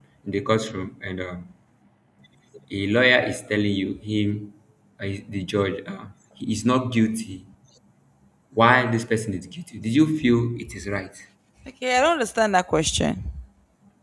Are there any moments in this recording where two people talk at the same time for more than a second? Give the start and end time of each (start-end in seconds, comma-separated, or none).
none